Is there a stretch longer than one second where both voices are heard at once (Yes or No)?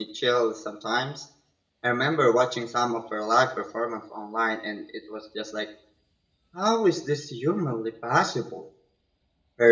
No